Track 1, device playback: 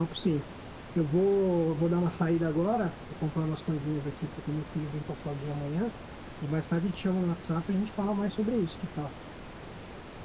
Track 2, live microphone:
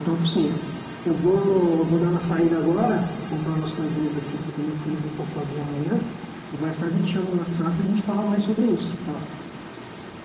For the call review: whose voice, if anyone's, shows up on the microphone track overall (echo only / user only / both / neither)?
echo only